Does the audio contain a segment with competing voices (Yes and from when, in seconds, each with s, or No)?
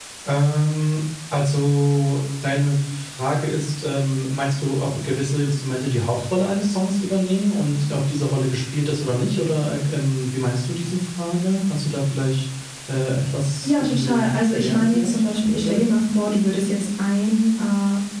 Yes, from 13.6 s